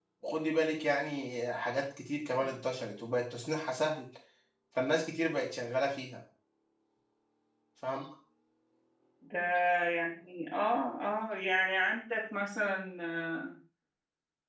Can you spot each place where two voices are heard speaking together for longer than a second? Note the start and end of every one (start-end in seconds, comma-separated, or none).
none